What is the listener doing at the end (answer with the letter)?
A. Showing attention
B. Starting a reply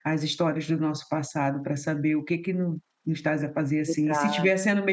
A